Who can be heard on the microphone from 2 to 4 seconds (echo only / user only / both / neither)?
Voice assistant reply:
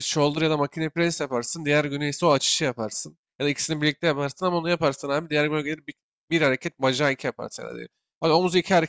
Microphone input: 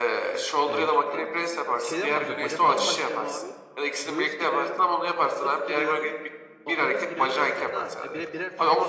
both